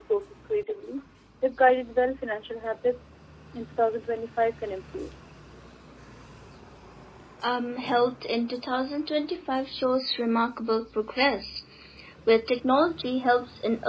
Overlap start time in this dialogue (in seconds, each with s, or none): none